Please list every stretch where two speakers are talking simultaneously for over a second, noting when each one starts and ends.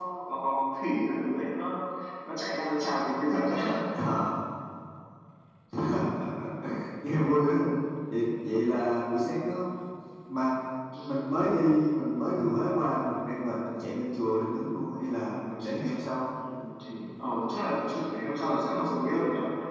none

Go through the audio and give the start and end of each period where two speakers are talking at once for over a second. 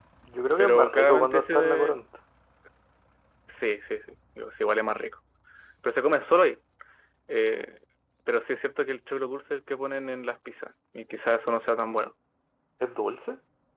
0.6-1.9

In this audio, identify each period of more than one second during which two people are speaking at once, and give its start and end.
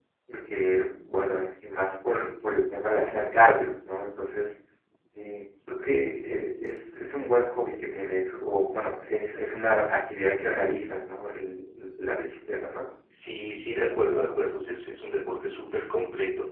none

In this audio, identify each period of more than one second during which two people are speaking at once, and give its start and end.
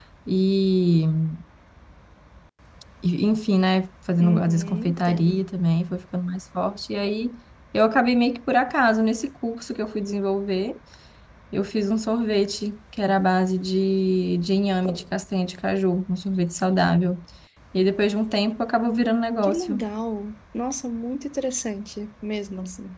4.2-5.4

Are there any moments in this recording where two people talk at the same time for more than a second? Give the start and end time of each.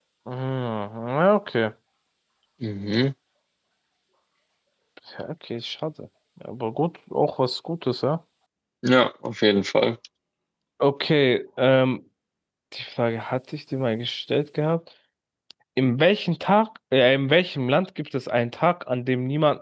none

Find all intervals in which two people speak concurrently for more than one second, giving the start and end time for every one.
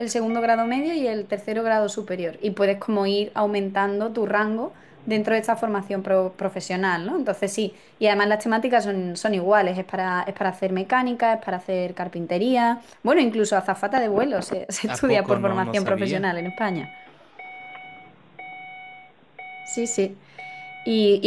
14.9-16.3

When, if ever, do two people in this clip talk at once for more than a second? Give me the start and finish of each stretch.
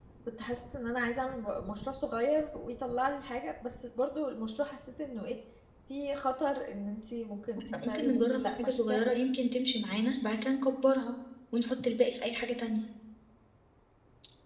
7.9-9.2

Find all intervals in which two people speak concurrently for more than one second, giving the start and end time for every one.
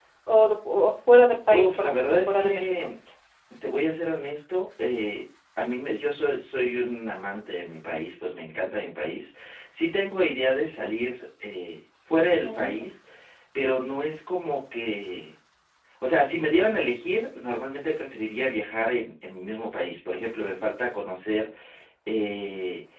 1.5-2.9

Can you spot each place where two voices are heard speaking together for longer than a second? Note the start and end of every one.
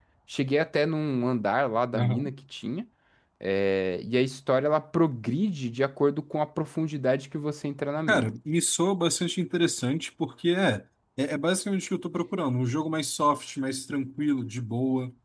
none

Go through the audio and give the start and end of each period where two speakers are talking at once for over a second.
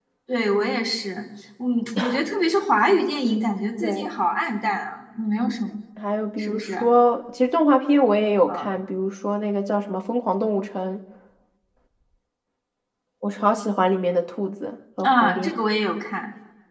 none

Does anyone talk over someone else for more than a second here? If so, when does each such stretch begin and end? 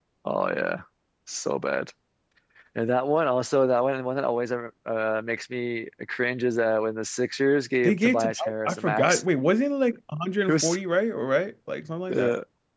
7.8-9.2

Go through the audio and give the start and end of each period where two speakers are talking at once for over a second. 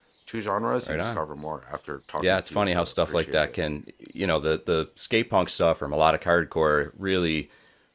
2.2-3.5

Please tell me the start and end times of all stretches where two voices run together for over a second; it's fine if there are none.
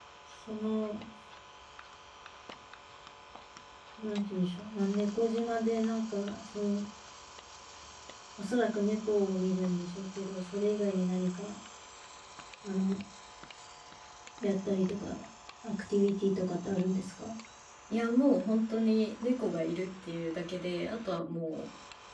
none

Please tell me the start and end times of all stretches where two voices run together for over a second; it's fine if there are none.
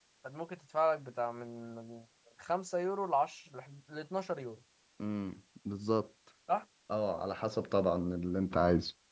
none

